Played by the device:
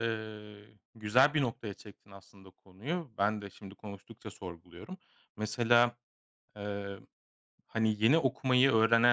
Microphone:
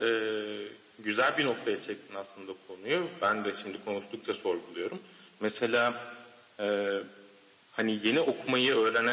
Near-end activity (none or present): none